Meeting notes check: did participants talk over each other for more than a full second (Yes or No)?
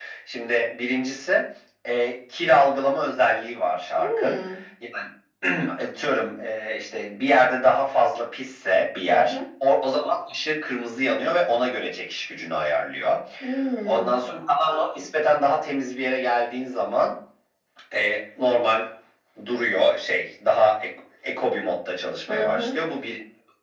No